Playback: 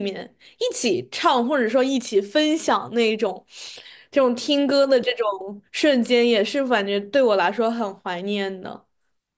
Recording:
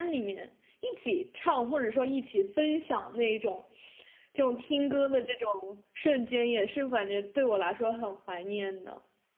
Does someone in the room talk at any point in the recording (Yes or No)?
No